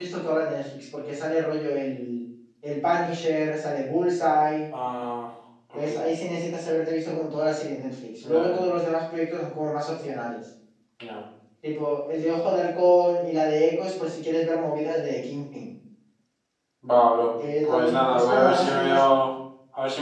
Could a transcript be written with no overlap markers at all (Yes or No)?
No